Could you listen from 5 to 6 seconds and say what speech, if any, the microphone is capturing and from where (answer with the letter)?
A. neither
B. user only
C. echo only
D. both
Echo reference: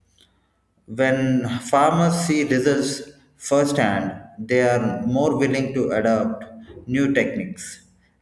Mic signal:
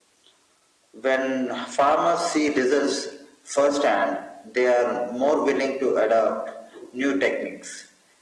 C